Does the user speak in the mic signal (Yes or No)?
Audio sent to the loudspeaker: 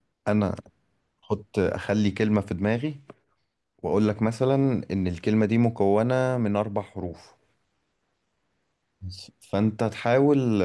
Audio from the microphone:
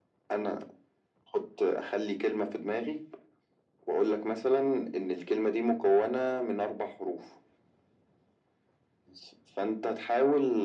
No